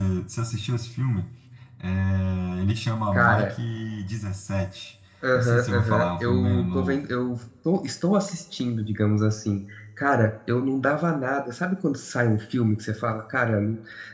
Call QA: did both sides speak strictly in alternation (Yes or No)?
No